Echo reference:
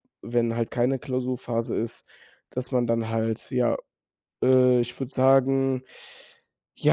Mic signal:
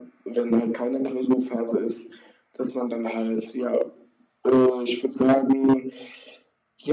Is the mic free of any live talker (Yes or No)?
Yes